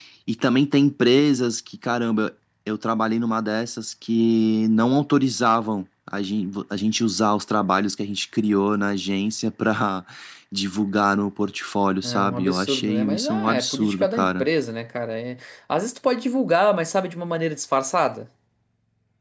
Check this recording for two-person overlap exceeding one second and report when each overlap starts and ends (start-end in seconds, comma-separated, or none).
12.0-14.4